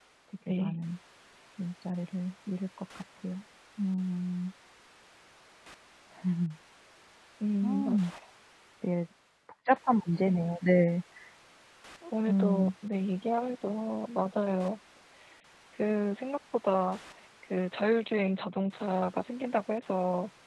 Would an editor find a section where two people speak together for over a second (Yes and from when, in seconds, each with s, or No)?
No